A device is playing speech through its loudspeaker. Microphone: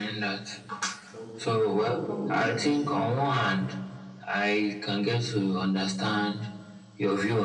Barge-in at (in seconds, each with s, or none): 1.1 s